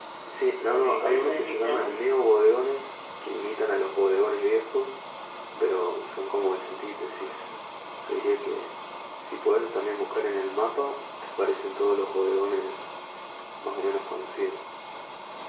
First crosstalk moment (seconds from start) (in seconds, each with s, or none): 0.6 s